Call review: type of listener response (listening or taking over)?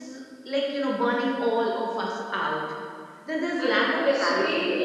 taking over